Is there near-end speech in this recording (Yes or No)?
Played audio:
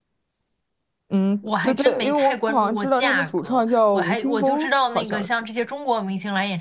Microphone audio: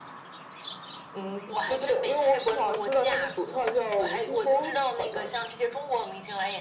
No